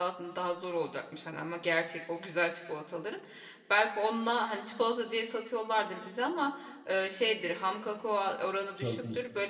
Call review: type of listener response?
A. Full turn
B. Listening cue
B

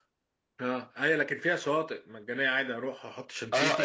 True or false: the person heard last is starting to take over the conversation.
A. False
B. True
B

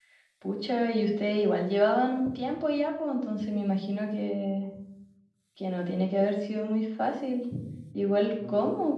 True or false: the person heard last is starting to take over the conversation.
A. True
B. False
B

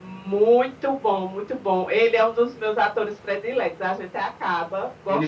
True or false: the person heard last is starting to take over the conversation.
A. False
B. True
B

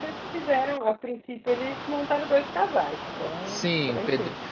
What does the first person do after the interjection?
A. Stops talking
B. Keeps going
A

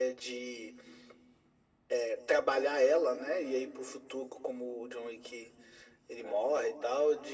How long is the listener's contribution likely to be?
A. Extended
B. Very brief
B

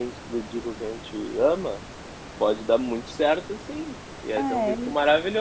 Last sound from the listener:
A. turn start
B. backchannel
B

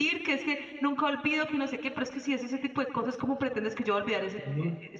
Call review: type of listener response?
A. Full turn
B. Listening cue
A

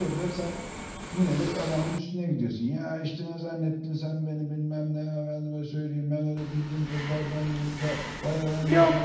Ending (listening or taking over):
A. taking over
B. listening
A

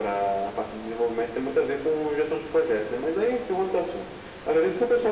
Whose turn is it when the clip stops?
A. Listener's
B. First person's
B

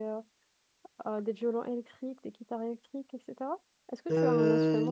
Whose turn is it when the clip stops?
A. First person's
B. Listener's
B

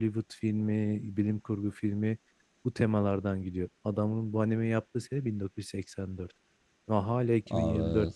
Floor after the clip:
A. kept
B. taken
A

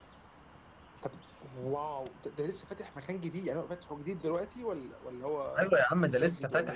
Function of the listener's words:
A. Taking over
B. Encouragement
A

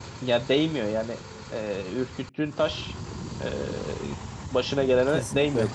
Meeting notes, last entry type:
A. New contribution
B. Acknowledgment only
A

